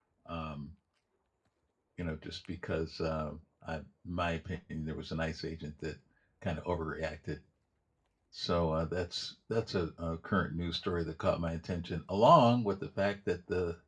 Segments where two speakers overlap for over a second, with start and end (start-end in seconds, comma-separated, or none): none